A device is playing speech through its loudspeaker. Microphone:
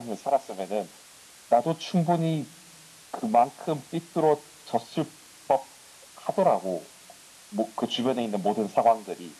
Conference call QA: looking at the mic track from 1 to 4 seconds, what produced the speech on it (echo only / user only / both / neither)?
echo only